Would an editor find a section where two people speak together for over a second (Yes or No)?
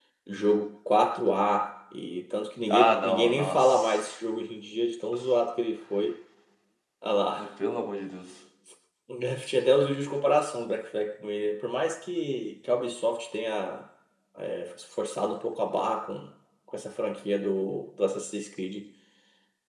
Yes